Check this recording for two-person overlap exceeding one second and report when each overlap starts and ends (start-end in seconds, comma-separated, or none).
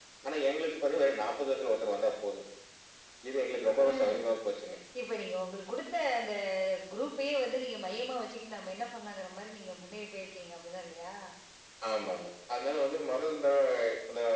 none